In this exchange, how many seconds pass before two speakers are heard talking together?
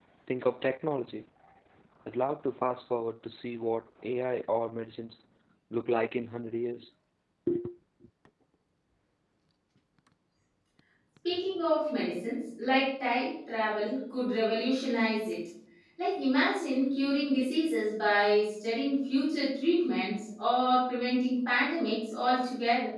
none

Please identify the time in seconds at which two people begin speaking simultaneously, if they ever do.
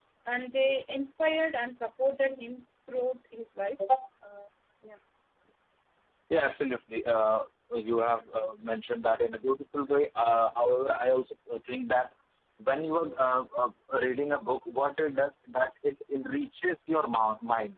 none

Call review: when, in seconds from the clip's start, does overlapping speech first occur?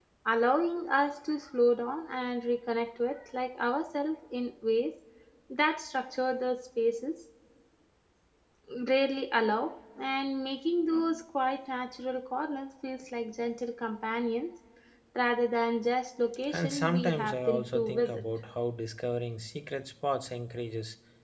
16.5 s

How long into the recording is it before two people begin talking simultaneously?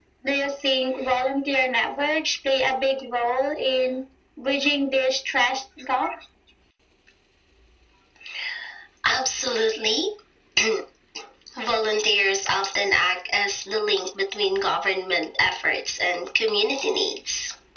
none

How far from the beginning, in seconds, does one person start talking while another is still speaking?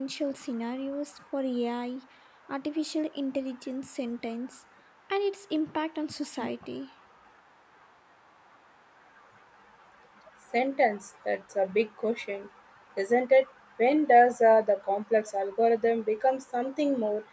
none

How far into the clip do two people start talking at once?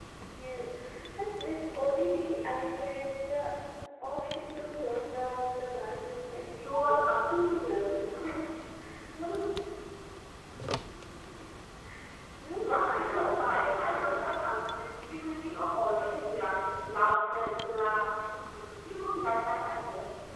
6.6 s

